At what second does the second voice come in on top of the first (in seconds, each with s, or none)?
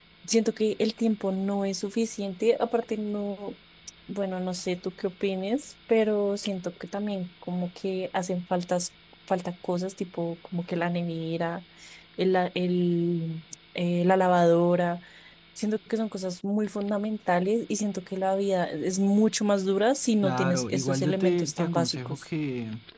20.2 s